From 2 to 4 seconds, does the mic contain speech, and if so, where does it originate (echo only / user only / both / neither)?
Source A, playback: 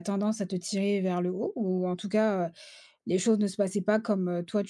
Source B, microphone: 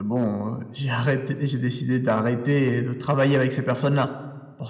user only